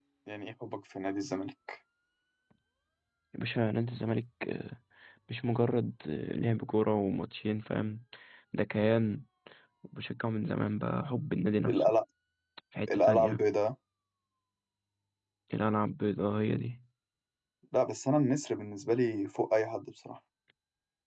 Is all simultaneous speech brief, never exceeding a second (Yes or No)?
Yes